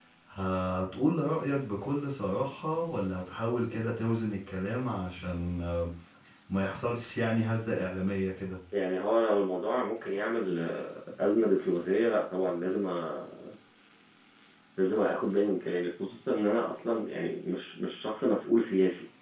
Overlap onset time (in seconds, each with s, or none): none